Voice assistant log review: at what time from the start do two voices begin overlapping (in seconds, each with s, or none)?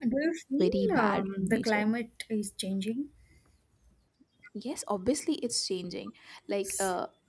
0.6 s